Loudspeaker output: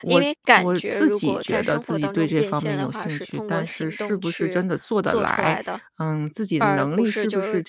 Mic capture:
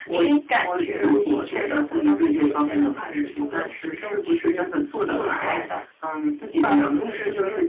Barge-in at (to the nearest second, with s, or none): none